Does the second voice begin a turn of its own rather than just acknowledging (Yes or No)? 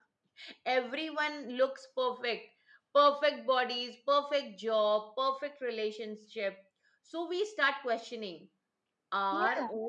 No